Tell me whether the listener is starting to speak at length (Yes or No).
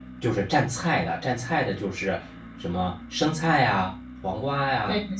No